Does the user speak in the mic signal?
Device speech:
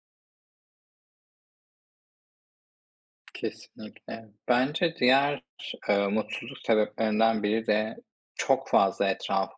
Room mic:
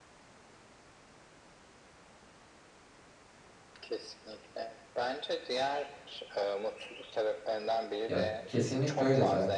Yes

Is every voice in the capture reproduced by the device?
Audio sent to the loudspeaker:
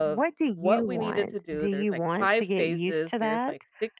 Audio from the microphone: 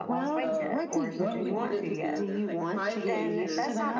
No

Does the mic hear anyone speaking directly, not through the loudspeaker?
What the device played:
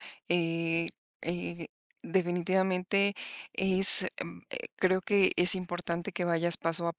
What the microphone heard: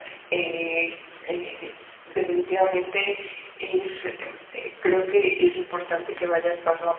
No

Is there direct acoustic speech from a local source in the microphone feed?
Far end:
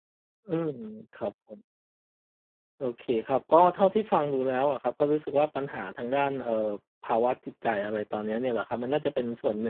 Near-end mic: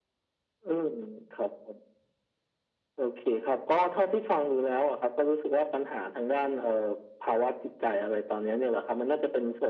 No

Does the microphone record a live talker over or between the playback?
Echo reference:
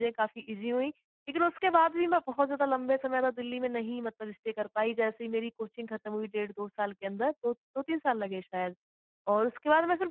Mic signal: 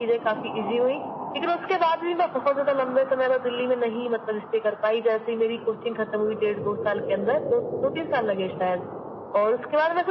No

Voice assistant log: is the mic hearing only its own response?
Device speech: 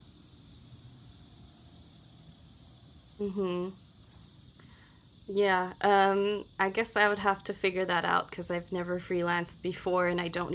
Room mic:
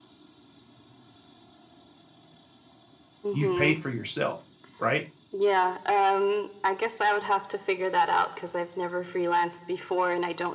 No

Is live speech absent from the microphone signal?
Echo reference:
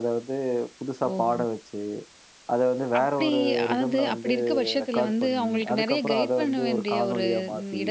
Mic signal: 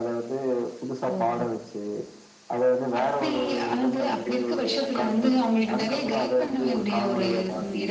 Yes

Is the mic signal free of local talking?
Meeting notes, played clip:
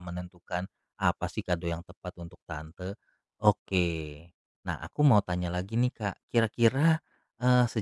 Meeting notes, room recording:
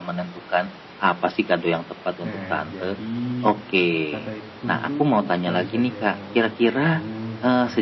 No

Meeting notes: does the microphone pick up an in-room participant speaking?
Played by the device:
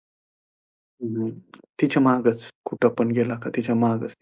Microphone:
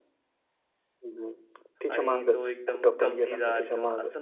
Yes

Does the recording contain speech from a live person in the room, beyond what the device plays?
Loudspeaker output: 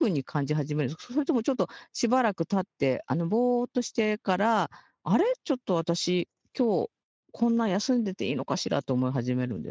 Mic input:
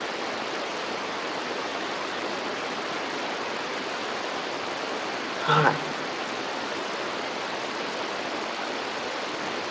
Yes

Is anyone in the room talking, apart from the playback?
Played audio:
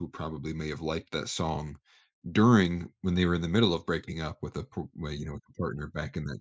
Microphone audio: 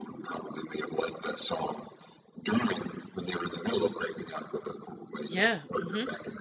Yes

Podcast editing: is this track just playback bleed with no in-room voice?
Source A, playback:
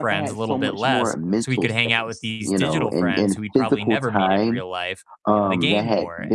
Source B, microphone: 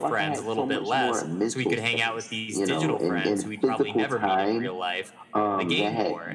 Yes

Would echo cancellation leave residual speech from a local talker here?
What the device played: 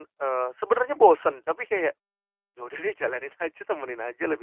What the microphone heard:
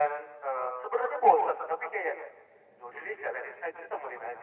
No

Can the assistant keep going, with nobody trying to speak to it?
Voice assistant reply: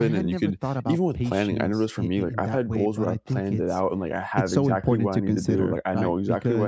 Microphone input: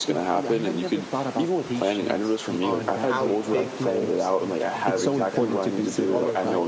No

